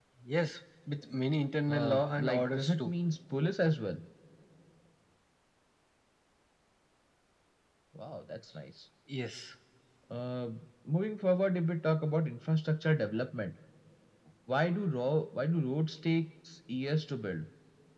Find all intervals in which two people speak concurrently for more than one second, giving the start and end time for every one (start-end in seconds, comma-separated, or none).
1.7-2.9